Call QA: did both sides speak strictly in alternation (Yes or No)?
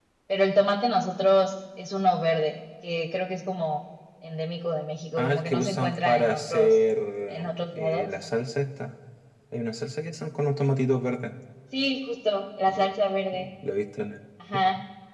No